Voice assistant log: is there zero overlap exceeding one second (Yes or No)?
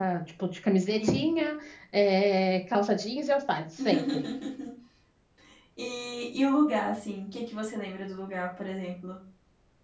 Yes